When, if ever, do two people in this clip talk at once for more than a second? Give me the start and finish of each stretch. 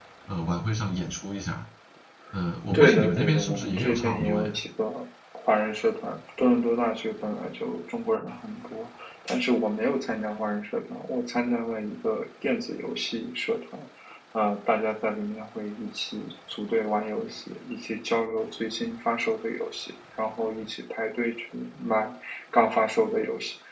2.7-4.6

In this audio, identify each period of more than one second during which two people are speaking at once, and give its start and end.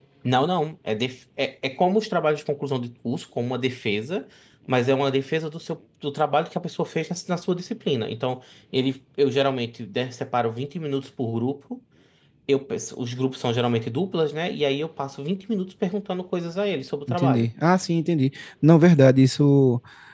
none

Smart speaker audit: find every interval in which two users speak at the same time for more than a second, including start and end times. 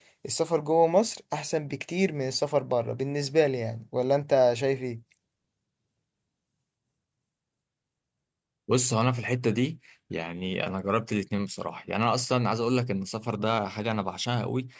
none

